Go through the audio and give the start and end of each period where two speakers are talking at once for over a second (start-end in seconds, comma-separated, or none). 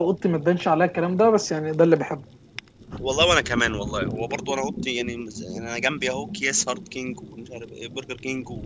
none